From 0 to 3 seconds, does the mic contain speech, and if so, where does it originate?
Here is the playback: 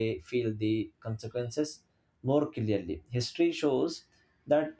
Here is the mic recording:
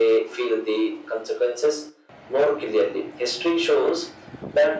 echo only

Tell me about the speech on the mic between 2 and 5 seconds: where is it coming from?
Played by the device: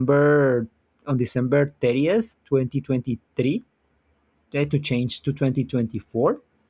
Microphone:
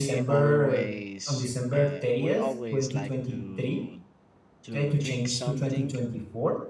both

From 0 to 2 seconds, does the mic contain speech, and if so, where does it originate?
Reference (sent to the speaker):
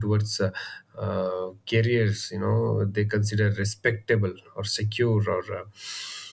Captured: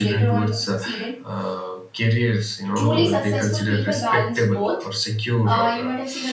both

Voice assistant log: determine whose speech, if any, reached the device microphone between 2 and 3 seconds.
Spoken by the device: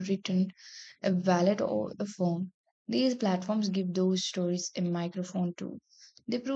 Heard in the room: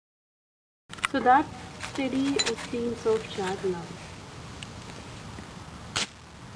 user only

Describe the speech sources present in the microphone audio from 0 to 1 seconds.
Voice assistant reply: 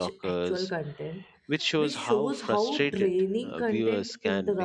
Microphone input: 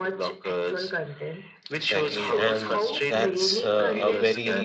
echo only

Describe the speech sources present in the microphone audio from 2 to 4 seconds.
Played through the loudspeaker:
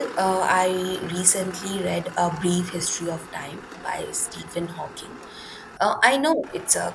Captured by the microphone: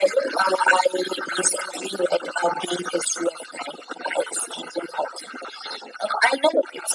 echo only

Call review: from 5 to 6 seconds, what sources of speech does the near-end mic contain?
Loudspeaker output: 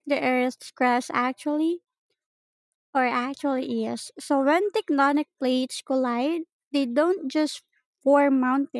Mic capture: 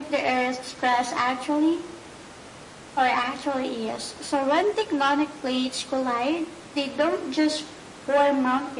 echo only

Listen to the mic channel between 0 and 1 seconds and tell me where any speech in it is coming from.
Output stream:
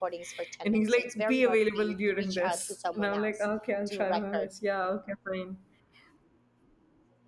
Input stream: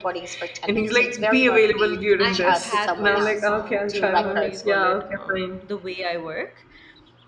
echo only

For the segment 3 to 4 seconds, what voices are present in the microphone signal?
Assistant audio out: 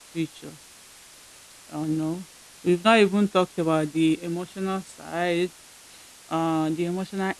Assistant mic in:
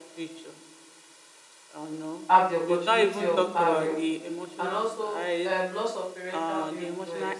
both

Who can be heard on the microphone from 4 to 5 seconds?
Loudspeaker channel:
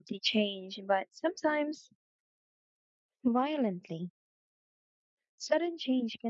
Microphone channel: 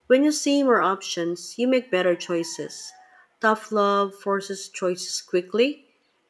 user only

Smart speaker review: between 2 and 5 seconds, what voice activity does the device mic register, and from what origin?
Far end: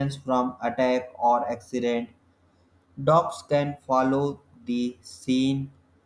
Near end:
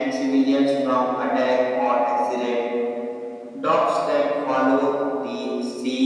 echo only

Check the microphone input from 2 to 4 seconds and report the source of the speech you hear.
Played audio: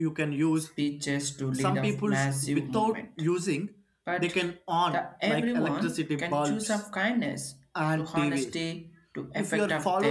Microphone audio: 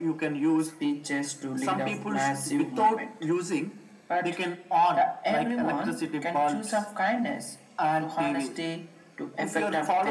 echo only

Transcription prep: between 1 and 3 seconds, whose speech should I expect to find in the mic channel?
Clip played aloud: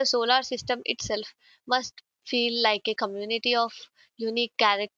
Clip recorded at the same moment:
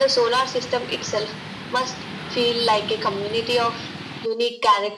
echo only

